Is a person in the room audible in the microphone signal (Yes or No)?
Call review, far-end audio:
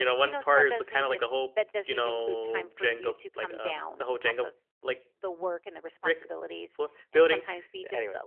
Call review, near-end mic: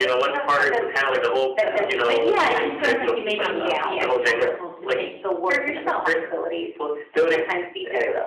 Yes